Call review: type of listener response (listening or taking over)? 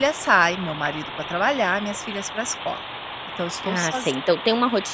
taking over